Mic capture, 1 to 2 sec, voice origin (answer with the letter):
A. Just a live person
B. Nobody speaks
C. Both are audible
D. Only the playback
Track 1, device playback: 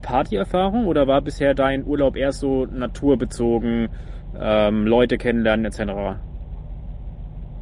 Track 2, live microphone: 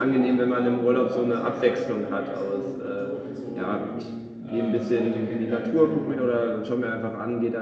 C